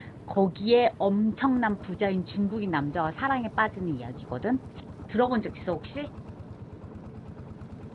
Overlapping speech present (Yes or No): No